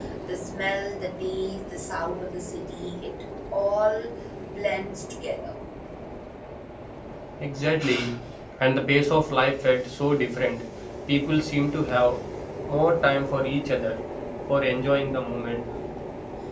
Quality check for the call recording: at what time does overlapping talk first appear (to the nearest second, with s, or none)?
none